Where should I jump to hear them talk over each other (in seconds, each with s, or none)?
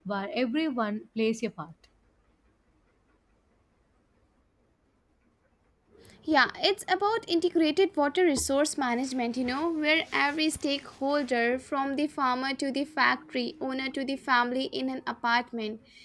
none